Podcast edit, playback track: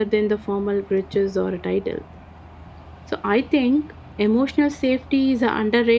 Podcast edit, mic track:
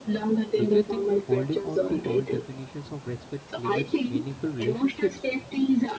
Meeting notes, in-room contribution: present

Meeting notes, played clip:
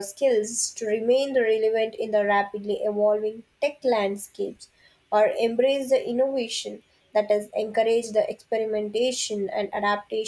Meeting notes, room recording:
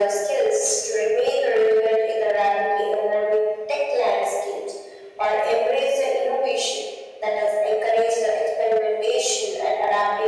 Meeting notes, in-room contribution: none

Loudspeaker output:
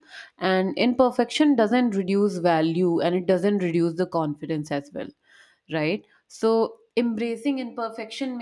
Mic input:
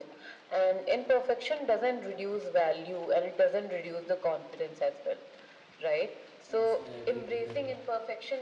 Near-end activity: present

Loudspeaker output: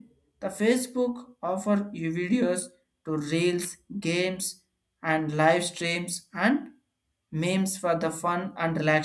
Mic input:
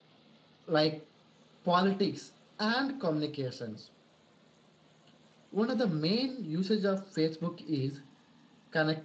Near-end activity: present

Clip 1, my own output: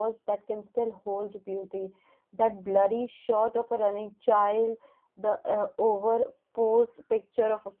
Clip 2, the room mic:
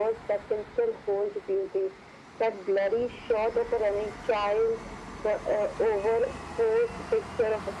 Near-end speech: none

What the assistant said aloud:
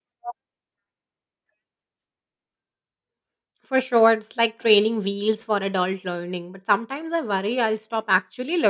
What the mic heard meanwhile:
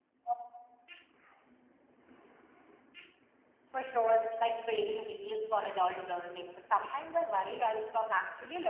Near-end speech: none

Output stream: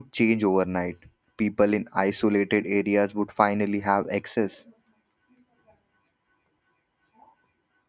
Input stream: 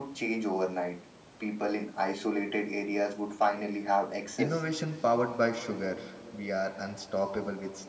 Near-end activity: present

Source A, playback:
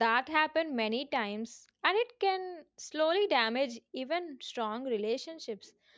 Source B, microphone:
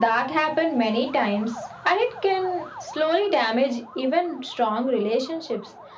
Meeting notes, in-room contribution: none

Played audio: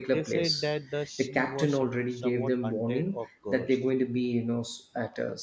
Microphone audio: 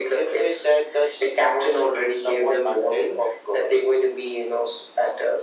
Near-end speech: none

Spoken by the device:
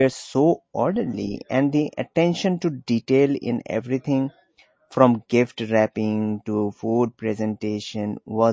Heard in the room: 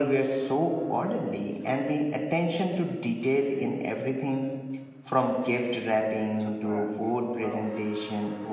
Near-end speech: present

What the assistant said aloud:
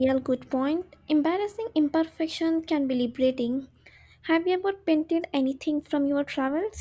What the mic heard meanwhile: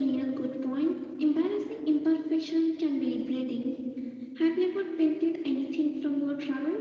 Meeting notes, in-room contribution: none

